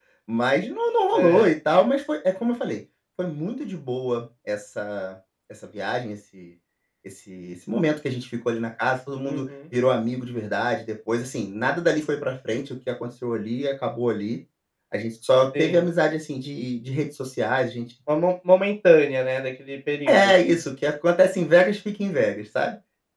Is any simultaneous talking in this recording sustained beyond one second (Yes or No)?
No